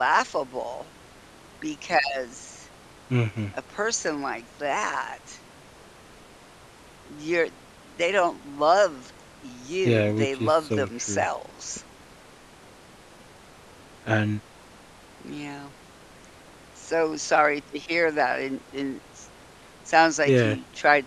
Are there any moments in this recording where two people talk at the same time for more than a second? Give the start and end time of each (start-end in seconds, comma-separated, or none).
9.8-11.2